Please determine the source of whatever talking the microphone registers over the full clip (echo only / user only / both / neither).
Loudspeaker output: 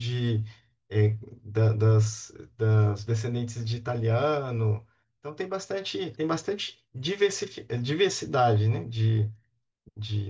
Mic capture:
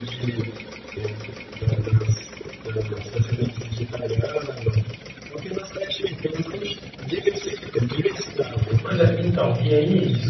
both